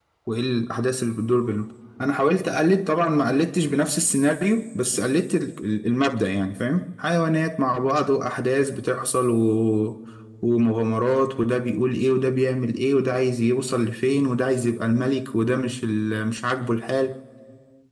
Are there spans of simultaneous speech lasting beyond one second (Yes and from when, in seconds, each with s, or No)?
No